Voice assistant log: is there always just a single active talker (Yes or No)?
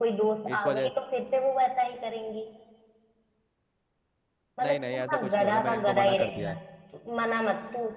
No